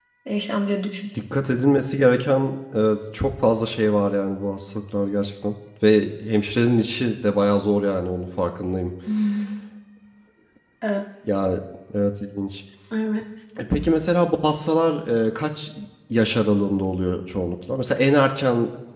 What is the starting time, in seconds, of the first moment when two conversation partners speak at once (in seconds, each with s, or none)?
none